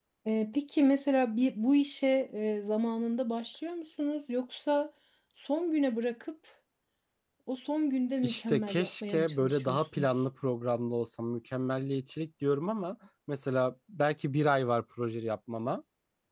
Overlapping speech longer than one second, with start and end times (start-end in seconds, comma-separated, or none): 8.2-10.1